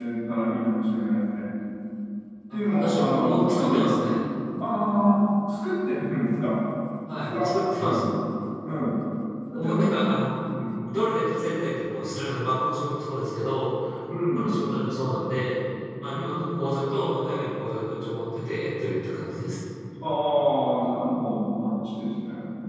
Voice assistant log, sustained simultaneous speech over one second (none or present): present